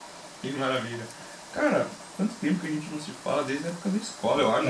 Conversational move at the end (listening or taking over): taking over